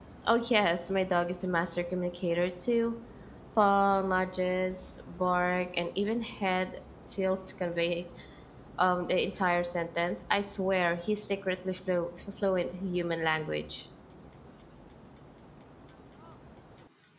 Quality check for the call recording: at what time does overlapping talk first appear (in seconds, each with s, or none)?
none